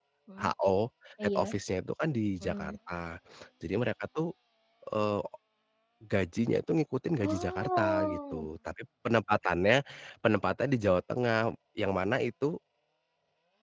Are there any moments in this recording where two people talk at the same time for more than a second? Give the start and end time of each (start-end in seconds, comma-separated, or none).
7.2-8.5